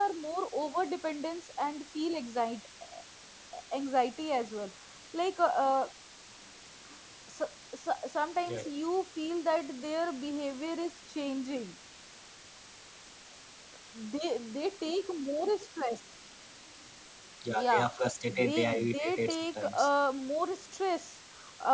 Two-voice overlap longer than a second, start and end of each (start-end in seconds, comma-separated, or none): 18.3-19.9